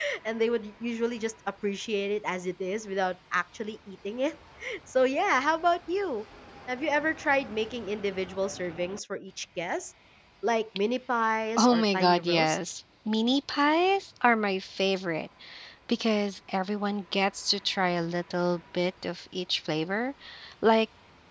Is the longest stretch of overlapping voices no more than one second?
No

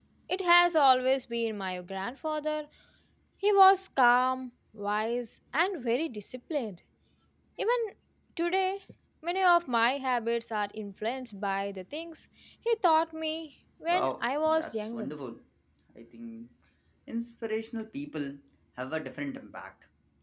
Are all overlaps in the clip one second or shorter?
No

